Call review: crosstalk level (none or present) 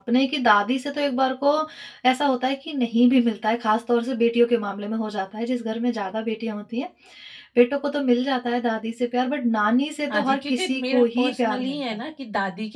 present